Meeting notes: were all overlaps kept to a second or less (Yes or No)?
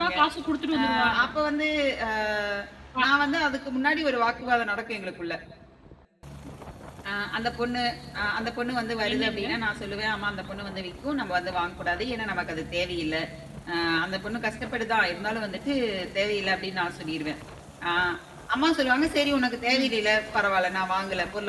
Yes